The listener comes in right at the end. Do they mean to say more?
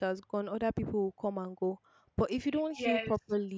No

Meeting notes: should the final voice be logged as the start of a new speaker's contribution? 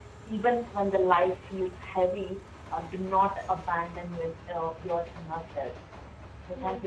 Yes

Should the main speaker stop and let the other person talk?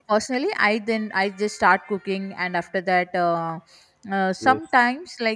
No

